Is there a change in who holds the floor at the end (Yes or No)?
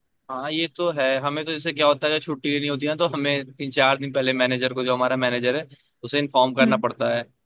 No